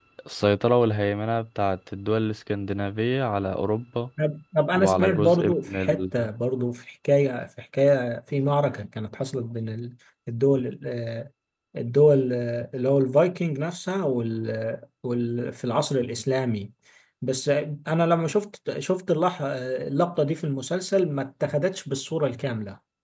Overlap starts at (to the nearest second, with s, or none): 5 s